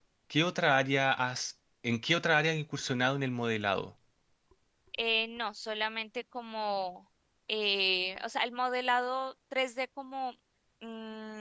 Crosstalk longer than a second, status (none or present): none